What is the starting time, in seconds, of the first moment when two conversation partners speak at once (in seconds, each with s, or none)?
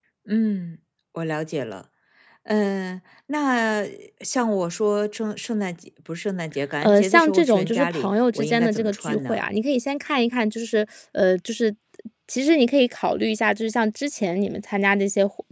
6.8 s